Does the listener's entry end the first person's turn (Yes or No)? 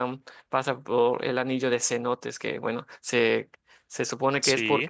No